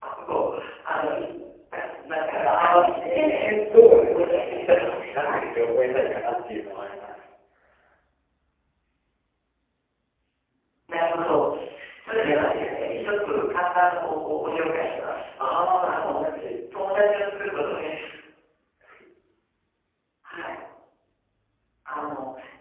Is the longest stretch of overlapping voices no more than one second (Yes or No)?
No